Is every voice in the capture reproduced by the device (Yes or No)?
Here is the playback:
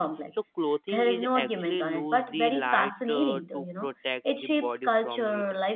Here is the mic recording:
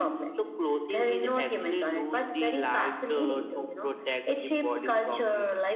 Yes